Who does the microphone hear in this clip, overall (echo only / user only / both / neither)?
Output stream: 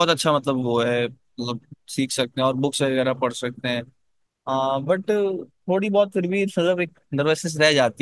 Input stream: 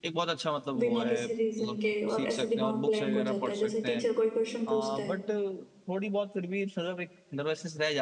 both